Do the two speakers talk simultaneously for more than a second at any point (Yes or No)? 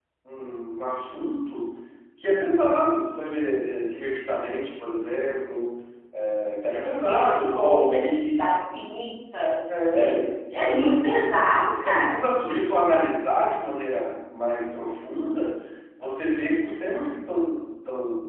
Yes